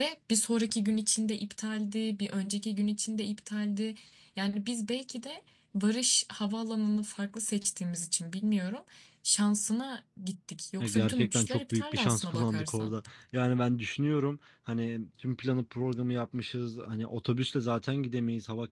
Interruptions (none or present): present